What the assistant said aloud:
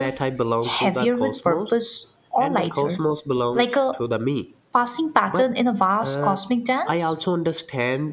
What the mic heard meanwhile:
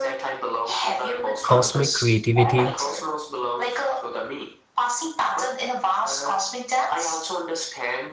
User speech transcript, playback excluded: cosmic creativity,

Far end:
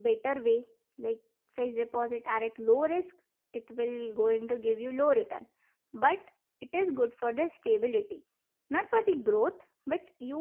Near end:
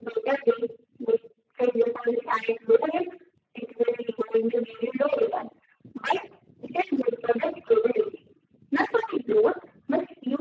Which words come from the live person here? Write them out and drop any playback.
none

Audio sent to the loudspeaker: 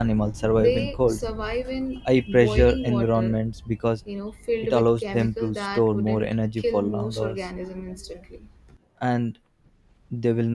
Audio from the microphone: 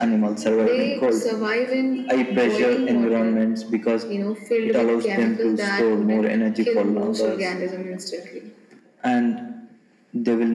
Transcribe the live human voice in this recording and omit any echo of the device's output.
none

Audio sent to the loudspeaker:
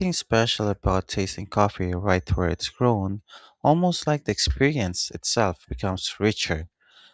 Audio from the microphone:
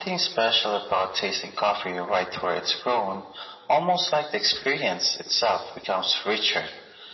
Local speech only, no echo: none

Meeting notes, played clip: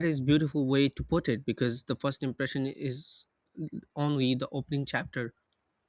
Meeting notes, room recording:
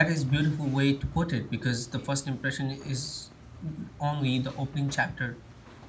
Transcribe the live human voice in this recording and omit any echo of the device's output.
none

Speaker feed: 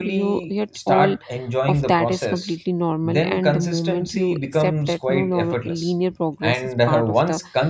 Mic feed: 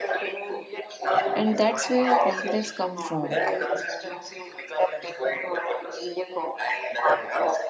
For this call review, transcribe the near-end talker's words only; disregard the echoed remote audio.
and that's where confidence comes from

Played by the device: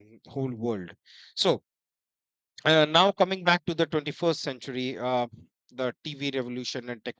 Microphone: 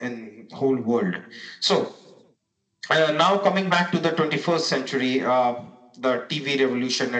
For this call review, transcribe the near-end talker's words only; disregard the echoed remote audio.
none

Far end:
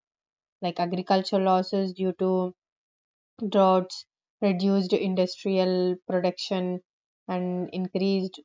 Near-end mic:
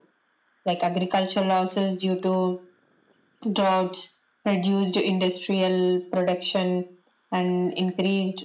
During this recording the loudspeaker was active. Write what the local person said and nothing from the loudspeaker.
none

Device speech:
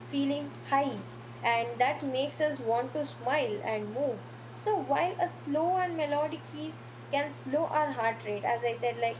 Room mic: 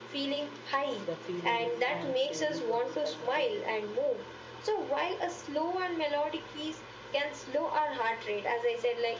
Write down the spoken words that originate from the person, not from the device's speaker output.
the feelings and stories of specific

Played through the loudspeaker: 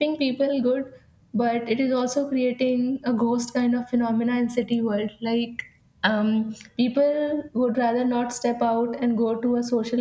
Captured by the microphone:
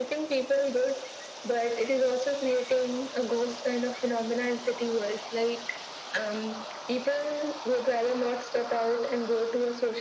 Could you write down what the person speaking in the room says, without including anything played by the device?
none

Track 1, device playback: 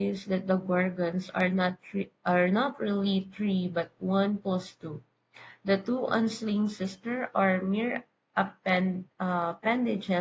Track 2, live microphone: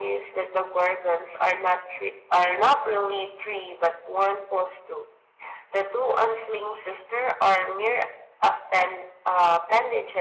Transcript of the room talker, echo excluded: none

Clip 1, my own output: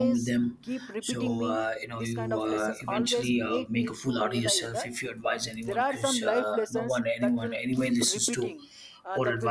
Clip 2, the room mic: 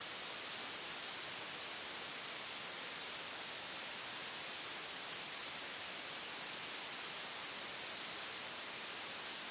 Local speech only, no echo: none

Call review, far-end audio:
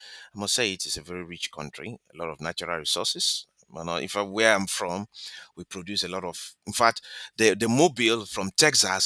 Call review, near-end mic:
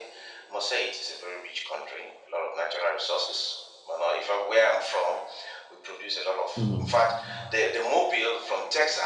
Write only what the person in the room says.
hmm

